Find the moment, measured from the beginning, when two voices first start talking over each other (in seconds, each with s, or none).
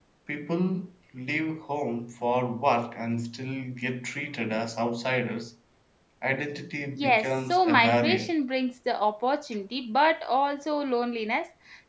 6.9 s